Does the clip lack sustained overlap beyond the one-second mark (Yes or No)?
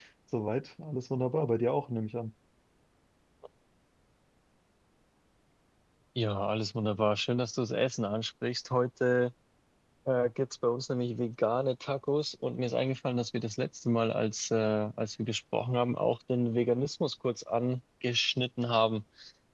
Yes